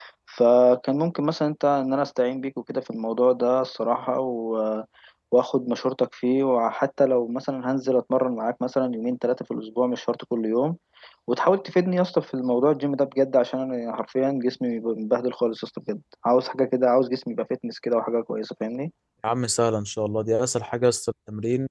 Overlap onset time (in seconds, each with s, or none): none